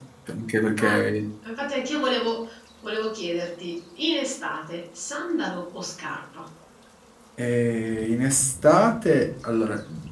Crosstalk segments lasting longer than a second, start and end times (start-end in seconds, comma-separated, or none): none